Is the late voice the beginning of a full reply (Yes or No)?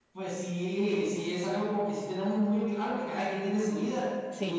No